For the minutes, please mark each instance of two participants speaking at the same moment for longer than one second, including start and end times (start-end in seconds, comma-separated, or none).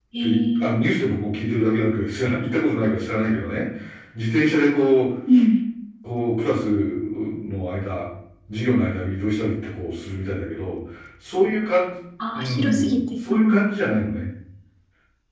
12.4-13.7